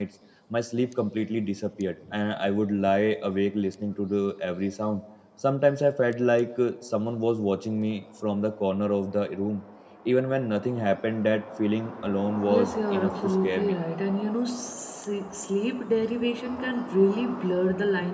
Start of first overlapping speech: 12.5 s

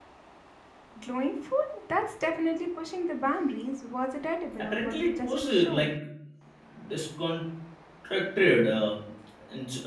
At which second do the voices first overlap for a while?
4.6 s

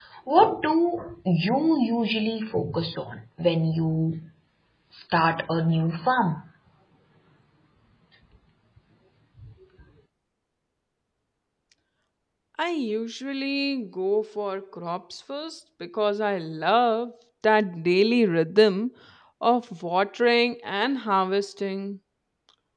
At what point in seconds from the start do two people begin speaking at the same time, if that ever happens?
none

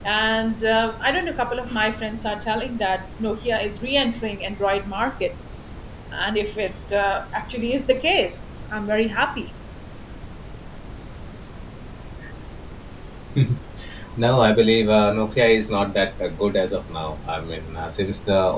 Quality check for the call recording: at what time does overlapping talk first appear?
none

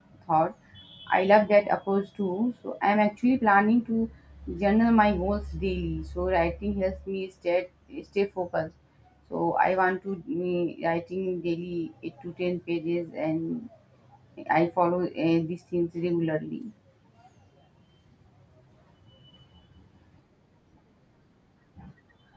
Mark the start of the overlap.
none

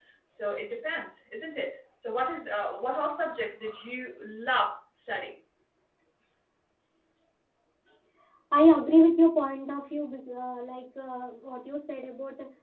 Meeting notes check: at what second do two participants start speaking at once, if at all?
none

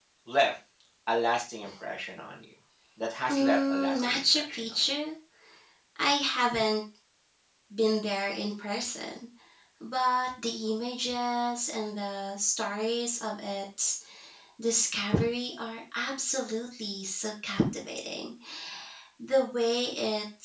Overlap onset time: 3.3 s

